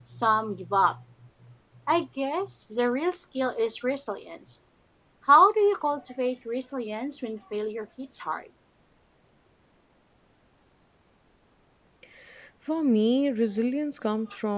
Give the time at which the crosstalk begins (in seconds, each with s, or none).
none